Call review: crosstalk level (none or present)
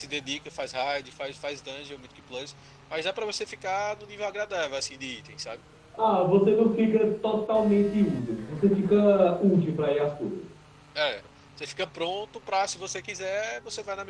none